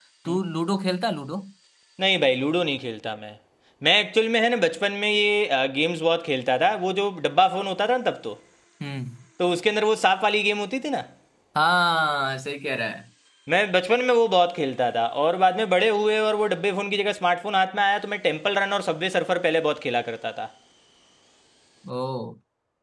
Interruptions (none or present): none